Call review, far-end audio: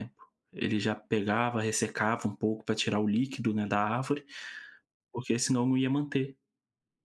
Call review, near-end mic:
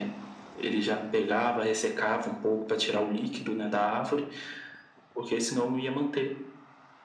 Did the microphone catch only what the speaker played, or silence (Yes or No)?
Yes